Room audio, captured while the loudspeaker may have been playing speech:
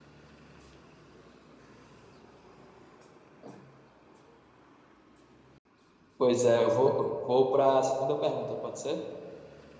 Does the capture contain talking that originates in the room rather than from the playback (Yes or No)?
Yes